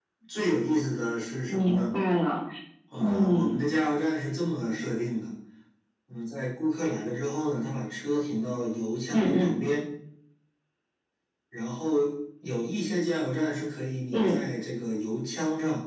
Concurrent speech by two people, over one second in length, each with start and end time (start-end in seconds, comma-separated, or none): none